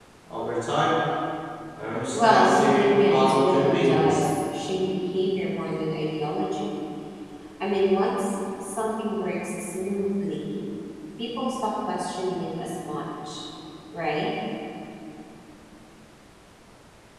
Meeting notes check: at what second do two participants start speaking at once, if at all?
2 s

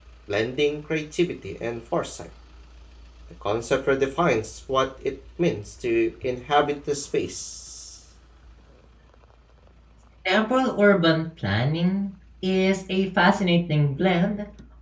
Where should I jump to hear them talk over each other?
none

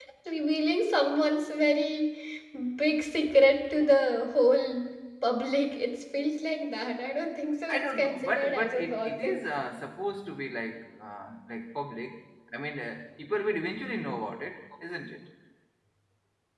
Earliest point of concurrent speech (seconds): 8 s

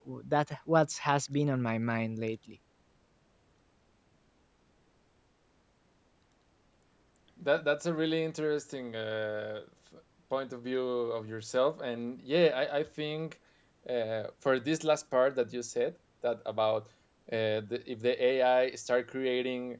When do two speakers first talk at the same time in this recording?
none

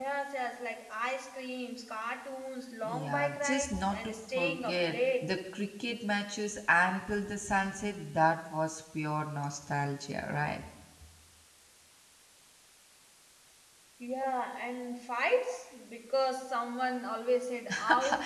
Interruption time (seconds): 3 s

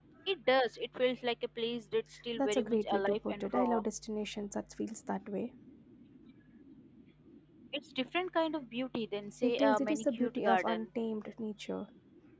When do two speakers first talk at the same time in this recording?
2 s

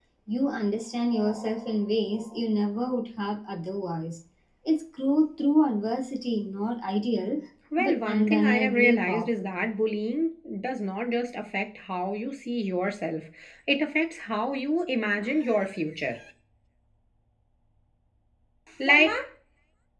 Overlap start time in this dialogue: 8 s

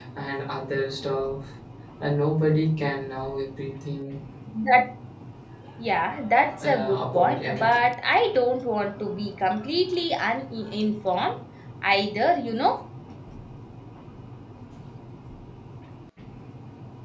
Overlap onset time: 7 s

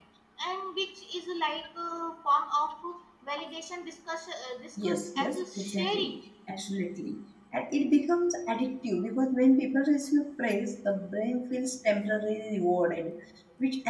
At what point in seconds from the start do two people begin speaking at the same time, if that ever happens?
5 s

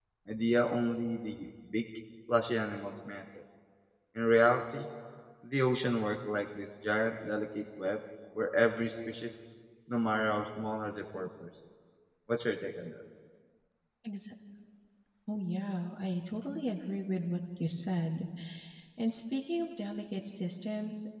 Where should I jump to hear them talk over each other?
none

